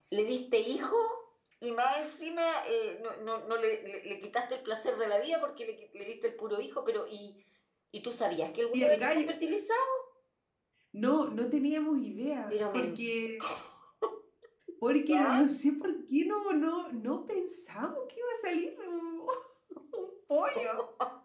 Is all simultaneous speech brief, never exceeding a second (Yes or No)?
Yes